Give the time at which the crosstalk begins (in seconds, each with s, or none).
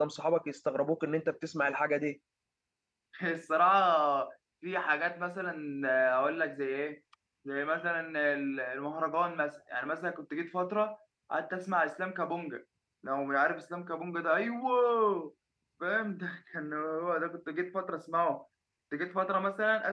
none